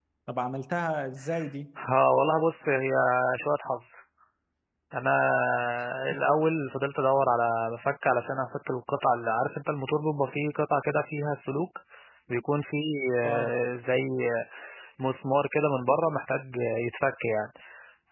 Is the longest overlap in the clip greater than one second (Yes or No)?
No